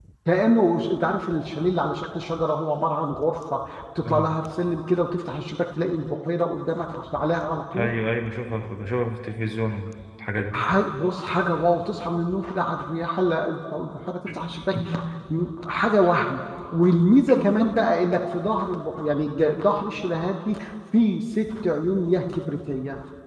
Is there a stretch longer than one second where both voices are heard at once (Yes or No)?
No